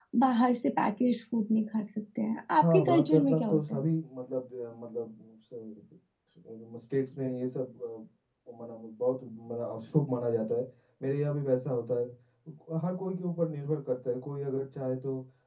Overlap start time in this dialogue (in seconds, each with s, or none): 2.6 s